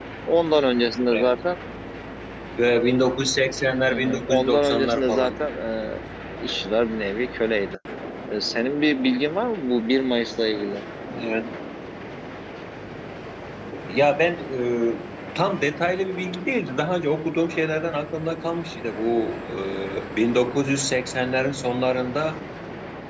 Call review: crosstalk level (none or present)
present